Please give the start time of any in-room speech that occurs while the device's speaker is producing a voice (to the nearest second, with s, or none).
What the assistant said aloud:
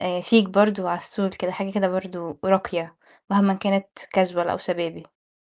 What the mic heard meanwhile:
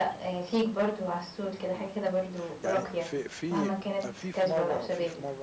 2 s